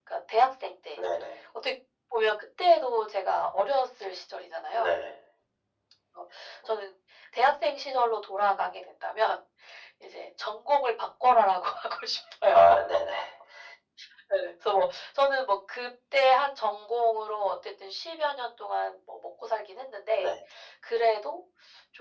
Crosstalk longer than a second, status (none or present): none